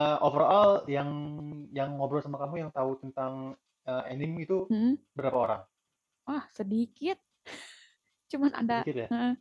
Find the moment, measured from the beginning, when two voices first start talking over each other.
none

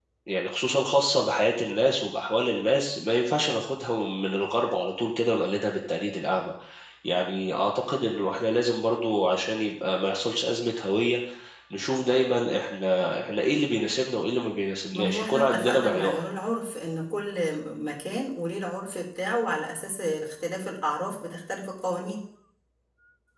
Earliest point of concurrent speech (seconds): 14.9 s

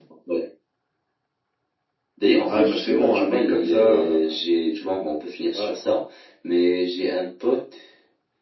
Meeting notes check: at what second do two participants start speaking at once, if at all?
2.5 s

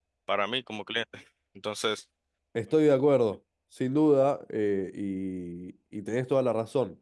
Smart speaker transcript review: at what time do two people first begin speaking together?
none

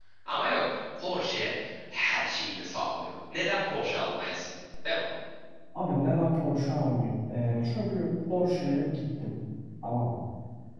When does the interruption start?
none

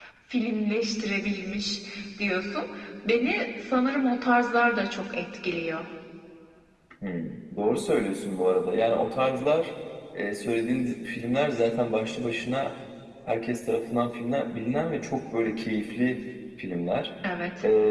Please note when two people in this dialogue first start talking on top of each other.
none

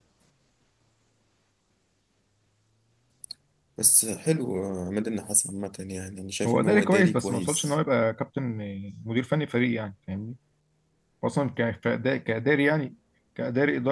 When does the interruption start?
6.4 s

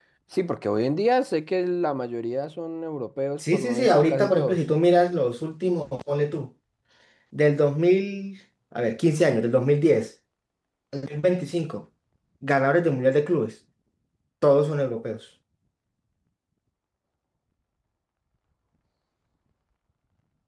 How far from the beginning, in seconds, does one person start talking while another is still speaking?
3.4 s

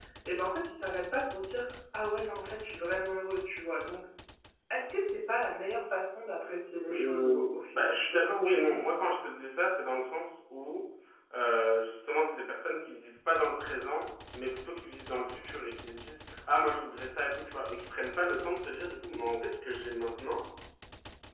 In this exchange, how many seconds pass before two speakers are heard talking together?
6.7 s

